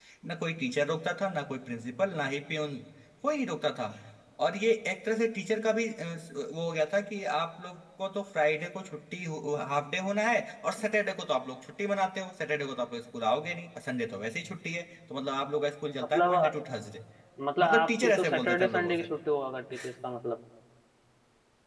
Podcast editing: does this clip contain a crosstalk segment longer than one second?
Yes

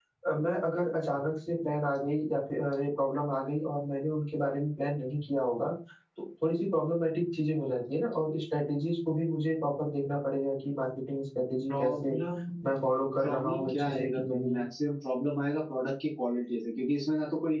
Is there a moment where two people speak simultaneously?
Yes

